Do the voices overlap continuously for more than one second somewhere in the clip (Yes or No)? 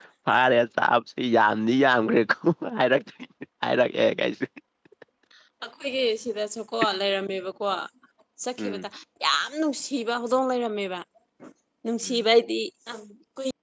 No